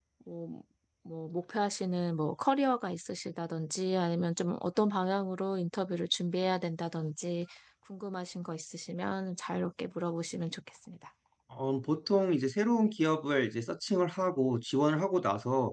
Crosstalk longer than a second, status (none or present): none